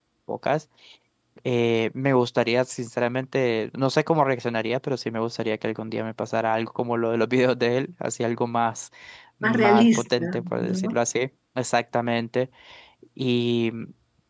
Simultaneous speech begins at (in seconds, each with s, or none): 9.4 s